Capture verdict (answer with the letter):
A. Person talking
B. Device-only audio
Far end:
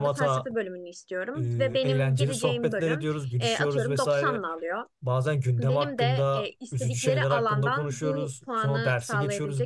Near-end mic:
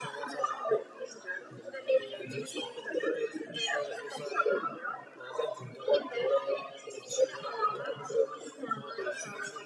B